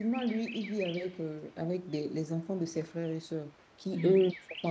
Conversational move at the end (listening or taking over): listening